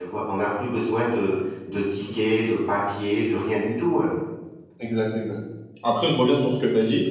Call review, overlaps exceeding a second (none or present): none